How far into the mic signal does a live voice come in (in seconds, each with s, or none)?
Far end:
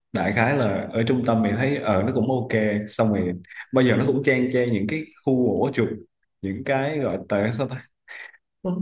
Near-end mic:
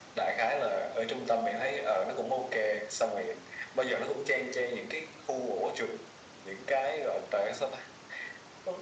none